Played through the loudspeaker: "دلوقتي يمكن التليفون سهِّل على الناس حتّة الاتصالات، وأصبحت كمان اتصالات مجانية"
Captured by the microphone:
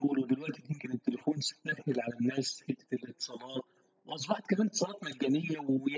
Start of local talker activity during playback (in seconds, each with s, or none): none